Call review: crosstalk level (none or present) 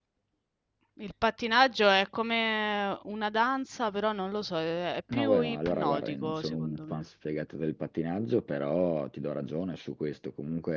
present